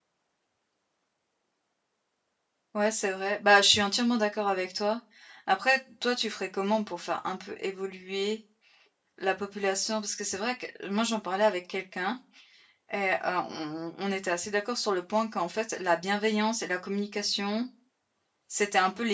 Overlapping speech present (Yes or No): No